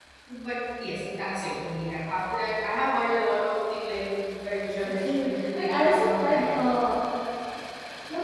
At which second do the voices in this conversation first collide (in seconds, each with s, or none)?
5.0 s